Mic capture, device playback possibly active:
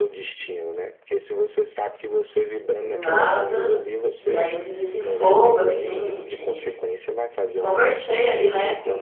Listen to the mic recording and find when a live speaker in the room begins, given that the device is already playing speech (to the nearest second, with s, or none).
3 s